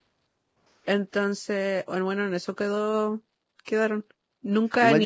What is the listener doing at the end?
taking over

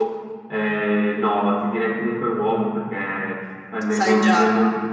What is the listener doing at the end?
listening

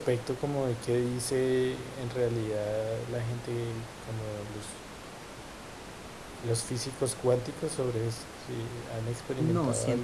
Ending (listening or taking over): taking over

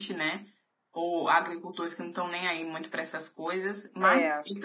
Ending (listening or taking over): listening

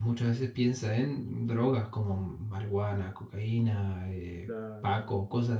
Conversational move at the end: listening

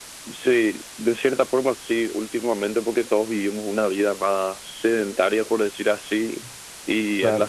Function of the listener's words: listening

